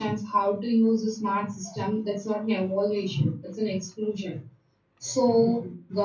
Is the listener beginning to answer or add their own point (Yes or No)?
No